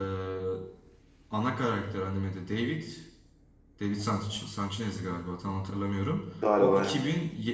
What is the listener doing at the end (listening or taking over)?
listening